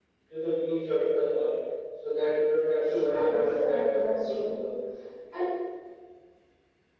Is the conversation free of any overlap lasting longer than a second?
No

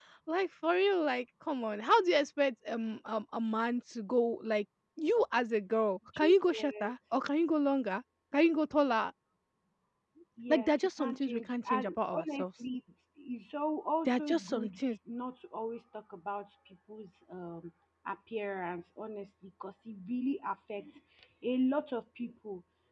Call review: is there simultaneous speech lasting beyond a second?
Yes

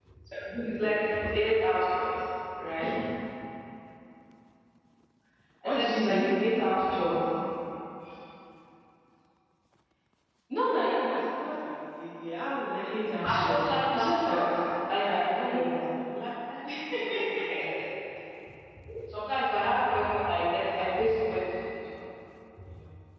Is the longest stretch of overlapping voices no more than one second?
No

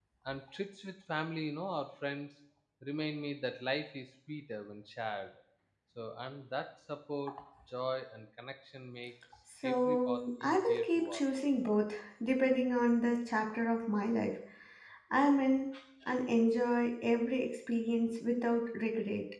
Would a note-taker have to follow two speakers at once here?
Yes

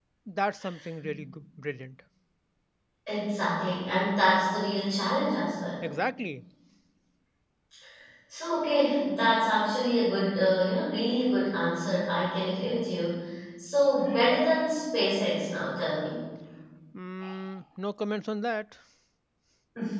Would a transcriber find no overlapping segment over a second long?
Yes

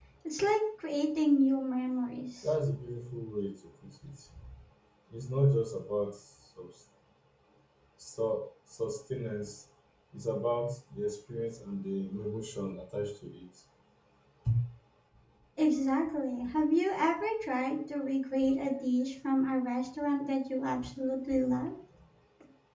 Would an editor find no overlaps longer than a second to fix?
Yes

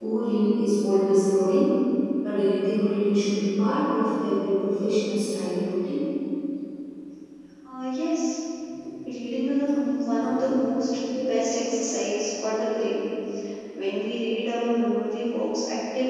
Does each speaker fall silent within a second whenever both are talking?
Yes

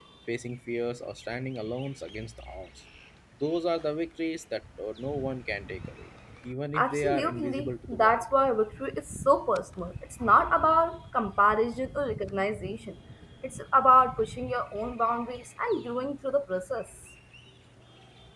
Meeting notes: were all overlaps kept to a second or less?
No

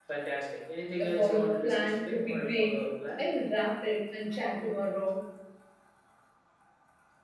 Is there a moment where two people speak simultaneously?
Yes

